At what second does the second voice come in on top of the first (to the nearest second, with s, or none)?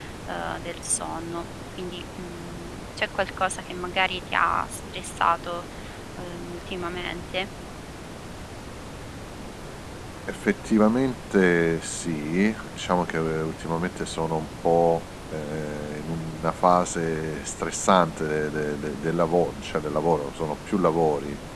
none